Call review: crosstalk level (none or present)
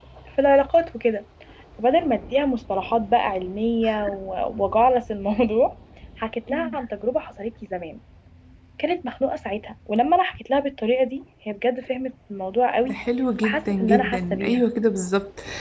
present